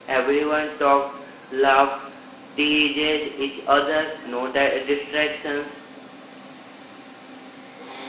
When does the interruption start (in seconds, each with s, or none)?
none